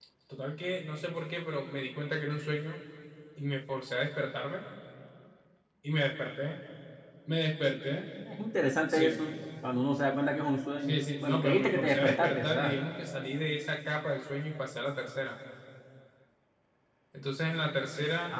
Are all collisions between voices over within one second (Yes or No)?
No